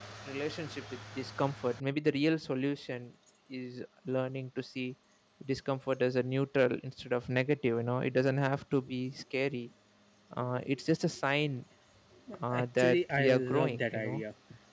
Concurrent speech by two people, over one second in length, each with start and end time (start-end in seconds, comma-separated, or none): 12.5-14.2